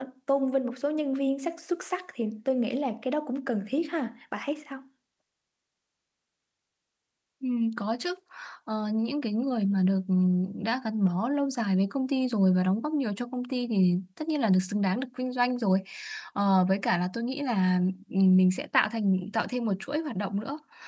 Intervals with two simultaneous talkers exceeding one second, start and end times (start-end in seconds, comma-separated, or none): none